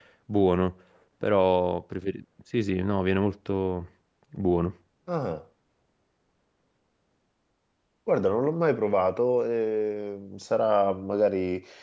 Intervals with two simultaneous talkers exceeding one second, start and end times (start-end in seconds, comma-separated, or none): none